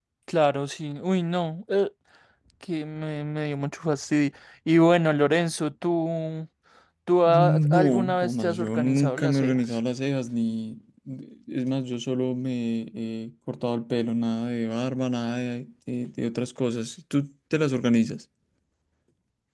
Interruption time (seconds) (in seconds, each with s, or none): 7.3 s